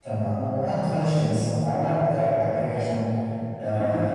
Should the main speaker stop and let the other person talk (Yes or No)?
No